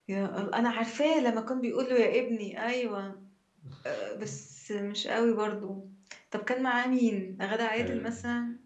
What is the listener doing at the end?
taking over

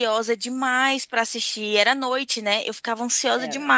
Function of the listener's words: listening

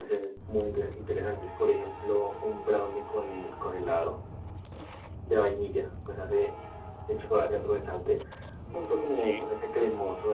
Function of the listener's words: listening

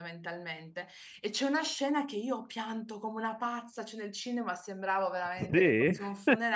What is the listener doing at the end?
listening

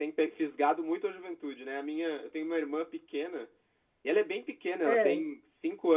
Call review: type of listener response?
listening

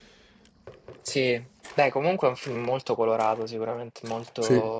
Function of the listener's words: listening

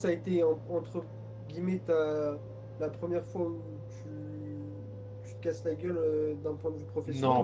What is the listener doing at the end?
taking over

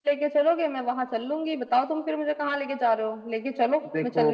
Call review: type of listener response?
taking over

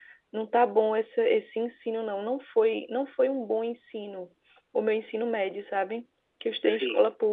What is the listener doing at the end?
listening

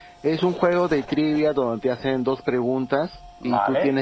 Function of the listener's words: listening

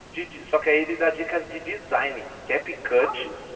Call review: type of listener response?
listening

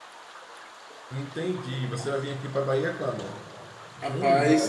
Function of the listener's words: taking over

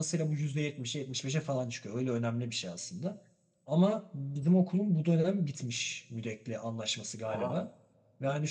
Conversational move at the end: listening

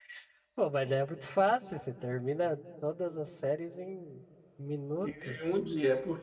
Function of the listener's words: taking over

